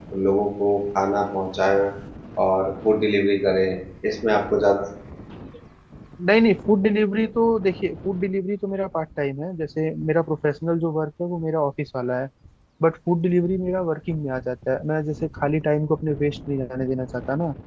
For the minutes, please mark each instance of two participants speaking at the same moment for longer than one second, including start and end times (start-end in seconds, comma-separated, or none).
none